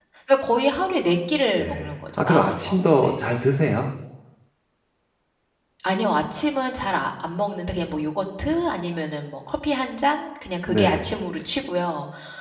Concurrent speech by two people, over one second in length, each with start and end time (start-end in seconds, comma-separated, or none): 1.6-3.2